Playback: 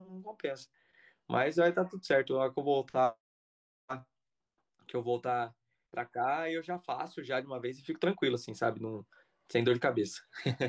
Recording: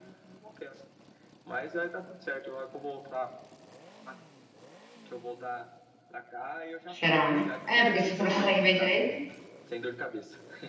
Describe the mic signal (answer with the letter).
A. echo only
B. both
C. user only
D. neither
B